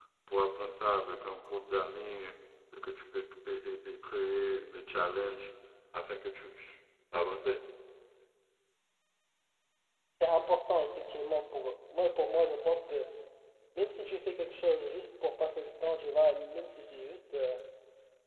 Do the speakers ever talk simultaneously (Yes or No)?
No